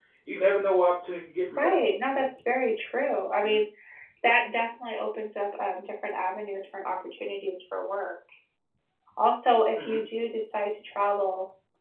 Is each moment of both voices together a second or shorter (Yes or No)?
Yes